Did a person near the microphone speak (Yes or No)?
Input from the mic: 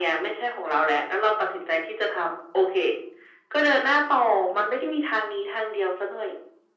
No